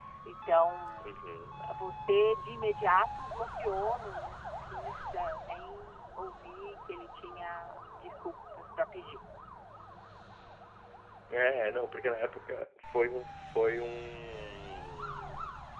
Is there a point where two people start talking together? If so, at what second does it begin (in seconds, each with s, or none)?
none